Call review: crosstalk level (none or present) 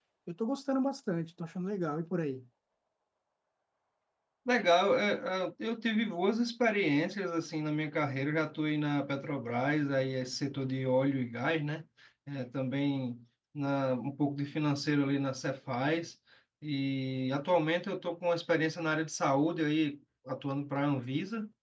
none